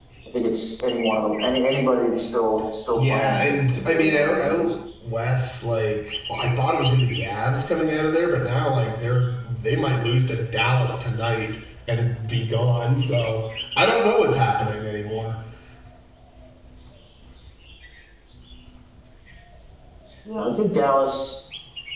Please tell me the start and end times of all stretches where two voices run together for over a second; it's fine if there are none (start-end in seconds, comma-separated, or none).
3.0-4.7